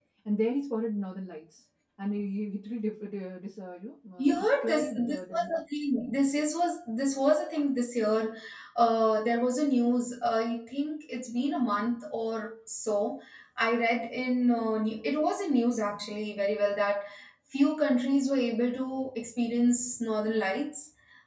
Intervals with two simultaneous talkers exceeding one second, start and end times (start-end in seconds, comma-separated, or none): 4.2-5.5